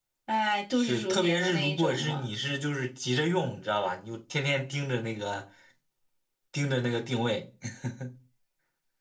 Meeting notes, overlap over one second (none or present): present